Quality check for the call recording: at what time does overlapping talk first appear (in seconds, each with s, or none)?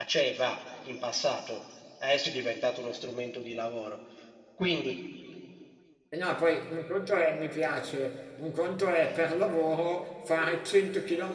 none